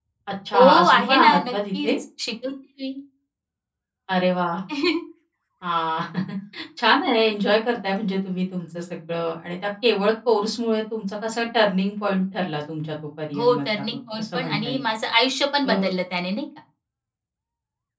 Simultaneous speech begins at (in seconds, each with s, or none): 0.5 s